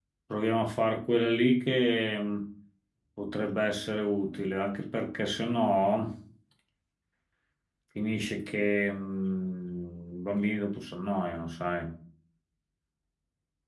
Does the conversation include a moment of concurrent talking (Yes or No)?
No